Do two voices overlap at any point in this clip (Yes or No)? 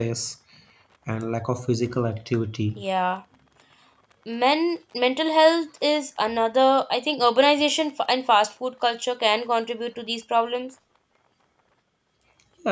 No